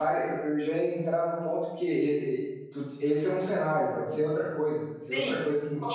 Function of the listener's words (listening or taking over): taking over